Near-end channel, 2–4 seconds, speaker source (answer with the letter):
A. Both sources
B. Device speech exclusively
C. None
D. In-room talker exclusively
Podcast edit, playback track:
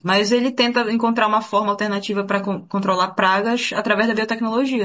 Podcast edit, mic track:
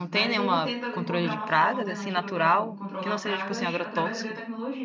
A